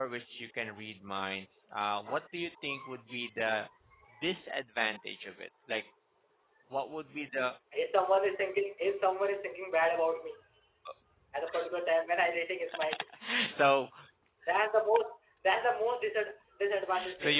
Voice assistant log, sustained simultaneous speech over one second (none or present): none